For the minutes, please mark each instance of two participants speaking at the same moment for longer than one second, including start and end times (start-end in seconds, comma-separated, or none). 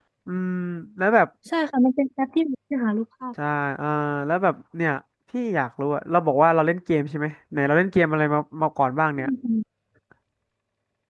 none